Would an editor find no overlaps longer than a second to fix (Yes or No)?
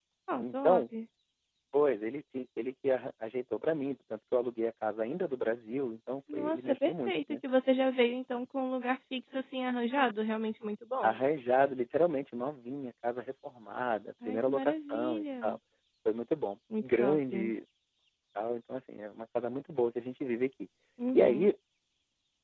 No